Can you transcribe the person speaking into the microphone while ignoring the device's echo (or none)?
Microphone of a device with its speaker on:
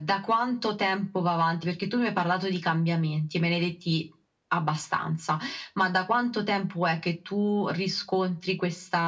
none